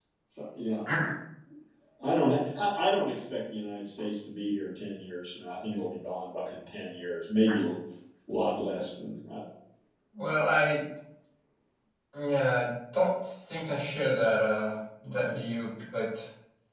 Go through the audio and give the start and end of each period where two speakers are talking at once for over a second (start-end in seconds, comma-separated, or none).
none